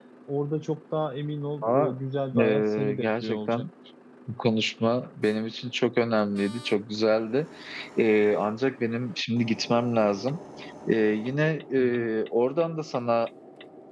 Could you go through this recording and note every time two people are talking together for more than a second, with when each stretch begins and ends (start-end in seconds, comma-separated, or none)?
2.4-3.6